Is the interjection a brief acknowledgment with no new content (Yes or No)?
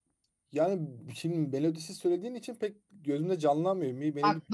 No